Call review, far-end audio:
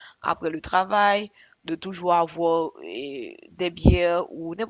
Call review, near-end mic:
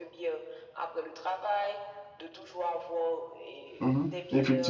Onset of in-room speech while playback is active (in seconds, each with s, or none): 3.8 s